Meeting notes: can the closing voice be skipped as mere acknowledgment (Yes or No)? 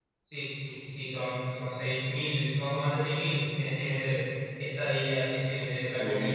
Yes